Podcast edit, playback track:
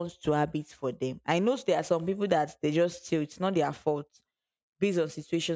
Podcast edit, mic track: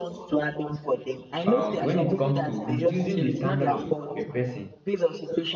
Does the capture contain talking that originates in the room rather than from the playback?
Yes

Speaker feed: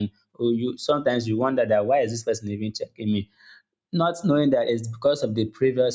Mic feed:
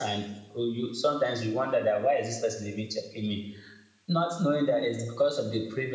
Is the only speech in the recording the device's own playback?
Yes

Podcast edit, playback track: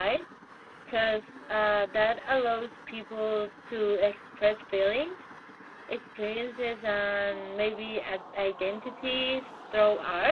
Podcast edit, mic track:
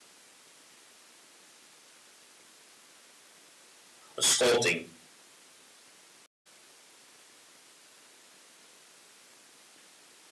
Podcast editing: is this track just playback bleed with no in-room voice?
No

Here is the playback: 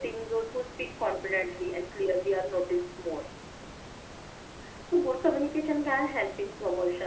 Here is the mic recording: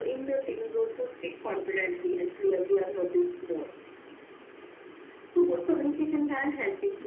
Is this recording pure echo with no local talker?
Yes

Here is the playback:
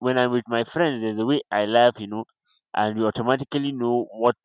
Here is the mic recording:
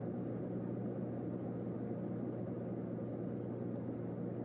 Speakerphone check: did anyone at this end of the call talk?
No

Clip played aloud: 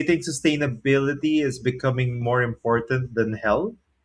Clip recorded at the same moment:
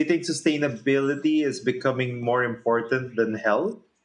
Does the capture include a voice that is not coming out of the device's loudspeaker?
No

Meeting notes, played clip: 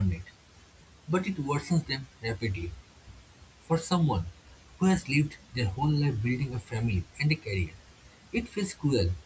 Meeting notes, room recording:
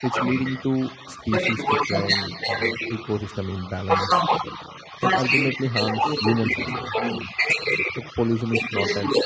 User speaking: Yes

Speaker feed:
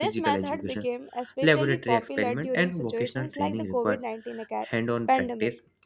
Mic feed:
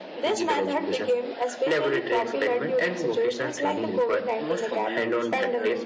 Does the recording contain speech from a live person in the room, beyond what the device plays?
Yes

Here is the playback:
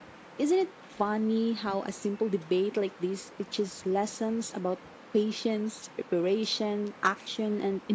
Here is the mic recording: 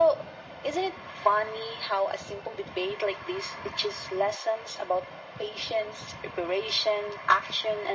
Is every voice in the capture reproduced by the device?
Yes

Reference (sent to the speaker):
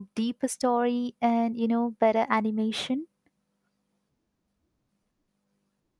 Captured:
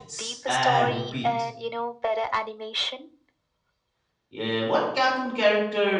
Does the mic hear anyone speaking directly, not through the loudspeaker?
Yes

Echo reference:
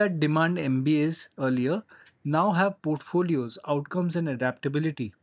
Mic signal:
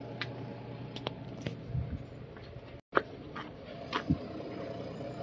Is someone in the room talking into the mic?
No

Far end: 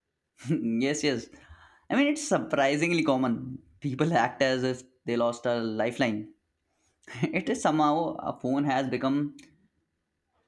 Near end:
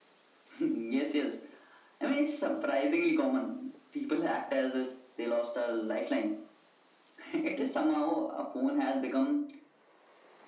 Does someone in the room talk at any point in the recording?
No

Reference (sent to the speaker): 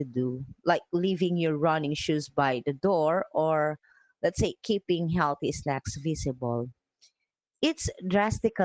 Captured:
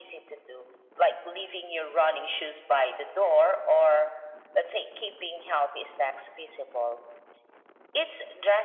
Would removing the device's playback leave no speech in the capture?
Yes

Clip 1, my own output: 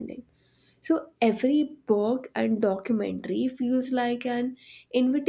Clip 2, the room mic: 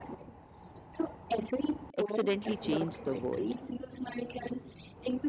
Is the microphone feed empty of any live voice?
No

